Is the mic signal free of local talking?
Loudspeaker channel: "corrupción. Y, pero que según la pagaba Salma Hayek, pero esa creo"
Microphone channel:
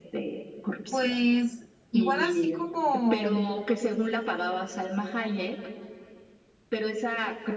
No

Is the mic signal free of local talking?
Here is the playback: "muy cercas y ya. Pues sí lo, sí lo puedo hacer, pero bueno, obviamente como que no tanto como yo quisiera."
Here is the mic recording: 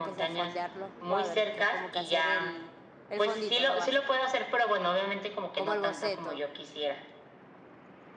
No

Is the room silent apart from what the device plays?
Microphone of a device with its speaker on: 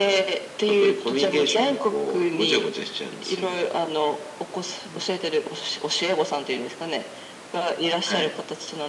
Yes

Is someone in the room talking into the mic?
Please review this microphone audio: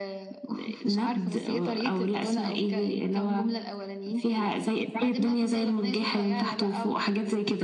No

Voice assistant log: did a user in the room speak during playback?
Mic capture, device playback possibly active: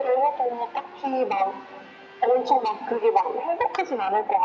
No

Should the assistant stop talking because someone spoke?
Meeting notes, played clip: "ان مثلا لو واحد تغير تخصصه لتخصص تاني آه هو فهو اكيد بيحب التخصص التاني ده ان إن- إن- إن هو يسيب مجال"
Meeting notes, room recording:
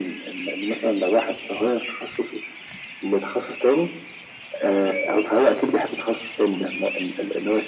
No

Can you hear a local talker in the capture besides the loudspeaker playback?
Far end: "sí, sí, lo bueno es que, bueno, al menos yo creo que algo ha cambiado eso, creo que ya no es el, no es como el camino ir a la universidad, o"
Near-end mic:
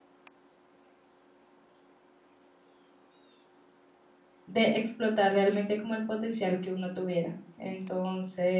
Yes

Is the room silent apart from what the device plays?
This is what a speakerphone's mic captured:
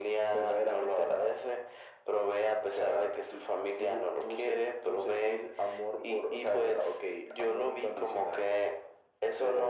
Yes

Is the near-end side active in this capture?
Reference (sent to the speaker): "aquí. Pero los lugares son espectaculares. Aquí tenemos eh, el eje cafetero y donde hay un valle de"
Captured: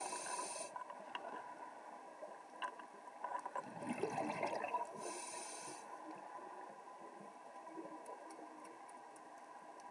No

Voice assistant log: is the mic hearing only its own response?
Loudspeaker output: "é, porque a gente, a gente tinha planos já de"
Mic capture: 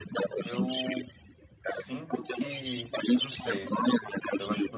No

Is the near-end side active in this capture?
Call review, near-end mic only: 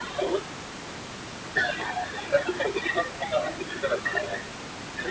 No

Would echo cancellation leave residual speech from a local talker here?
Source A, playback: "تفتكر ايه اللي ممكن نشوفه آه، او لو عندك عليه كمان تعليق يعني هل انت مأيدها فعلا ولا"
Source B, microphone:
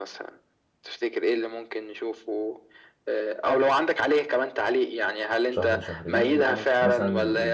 Yes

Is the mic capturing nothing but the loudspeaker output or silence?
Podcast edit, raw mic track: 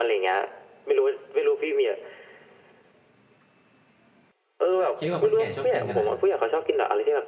No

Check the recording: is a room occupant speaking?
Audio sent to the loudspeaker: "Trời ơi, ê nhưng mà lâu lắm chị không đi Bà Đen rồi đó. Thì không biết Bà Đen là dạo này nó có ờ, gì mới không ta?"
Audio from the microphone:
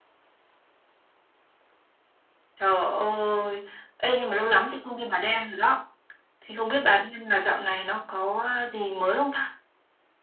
No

